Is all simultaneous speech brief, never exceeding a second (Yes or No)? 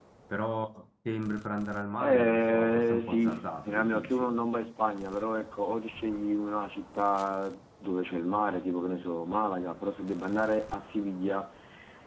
No